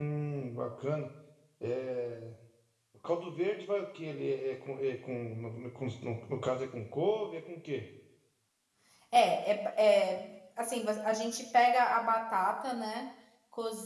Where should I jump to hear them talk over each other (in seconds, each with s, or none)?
none